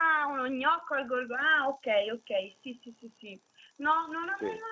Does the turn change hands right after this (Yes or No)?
No